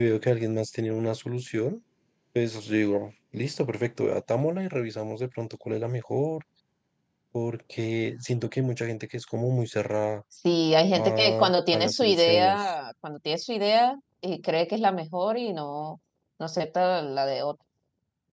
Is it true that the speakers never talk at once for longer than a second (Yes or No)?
No